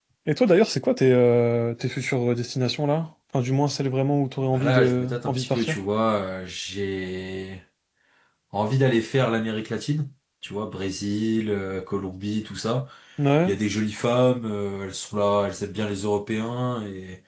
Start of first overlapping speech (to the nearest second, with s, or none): 5 s